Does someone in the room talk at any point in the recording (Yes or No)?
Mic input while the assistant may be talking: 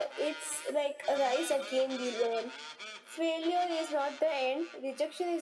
No